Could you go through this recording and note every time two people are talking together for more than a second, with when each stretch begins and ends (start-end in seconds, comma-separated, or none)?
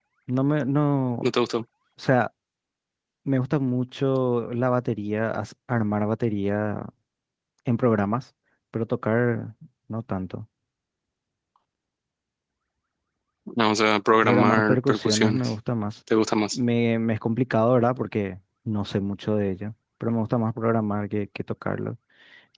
14.2-15.5